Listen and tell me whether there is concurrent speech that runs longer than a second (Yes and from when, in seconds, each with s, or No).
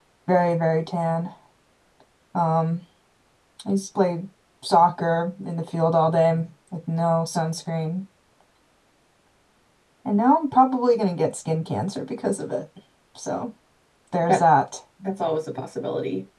No